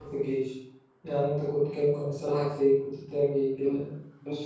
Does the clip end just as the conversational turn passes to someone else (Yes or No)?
Yes